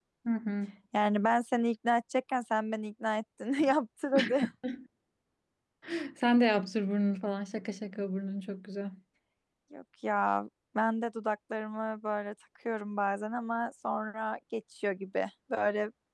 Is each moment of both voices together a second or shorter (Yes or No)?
Yes